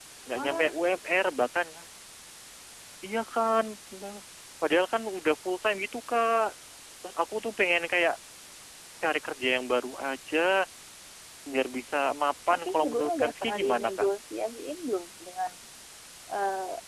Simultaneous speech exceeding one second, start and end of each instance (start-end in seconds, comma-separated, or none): 12.5-14.1